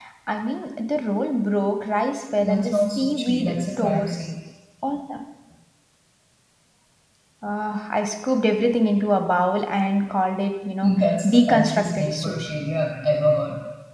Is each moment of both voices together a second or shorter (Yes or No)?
No